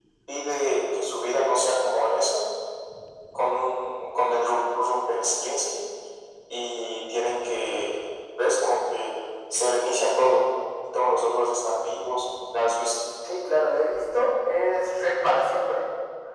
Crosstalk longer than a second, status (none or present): none